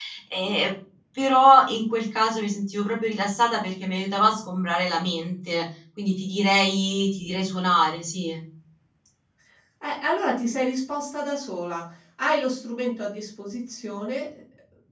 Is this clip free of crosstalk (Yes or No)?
Yes